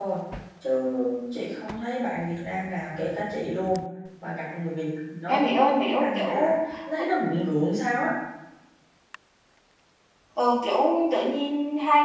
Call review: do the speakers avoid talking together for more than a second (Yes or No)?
No